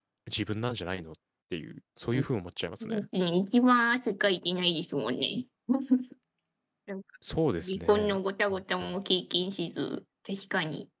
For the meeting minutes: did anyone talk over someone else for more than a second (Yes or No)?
No